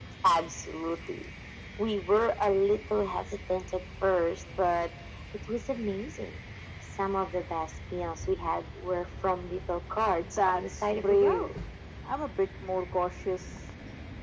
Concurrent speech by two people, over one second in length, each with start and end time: 10.2-11.5

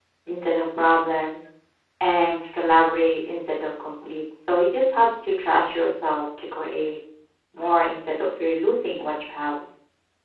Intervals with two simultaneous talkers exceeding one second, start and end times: none

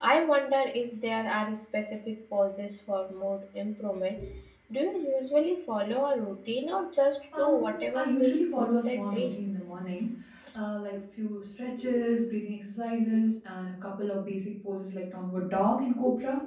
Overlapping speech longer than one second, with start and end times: 7.4-9.4

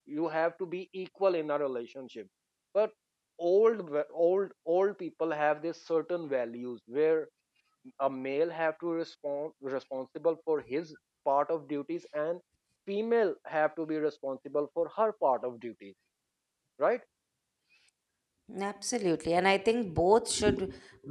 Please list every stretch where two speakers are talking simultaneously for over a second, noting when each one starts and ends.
none

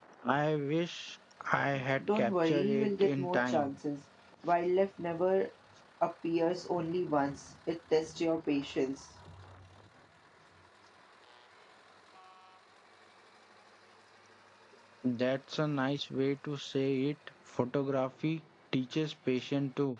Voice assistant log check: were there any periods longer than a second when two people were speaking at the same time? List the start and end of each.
2.0-3.7

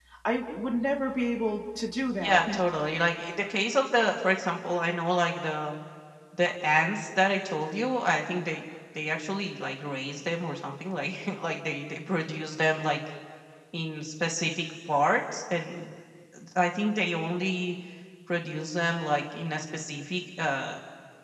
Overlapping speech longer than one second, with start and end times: none

